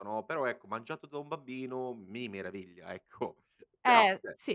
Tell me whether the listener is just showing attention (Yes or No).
No